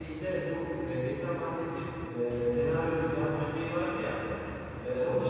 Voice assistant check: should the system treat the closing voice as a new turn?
No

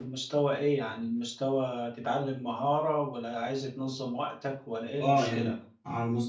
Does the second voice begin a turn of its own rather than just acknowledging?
Yes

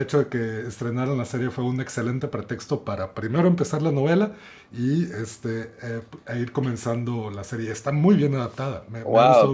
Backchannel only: No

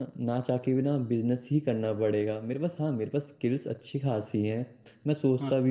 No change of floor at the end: Yes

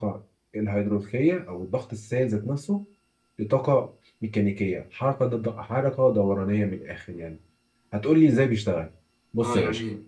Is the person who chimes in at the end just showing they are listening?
No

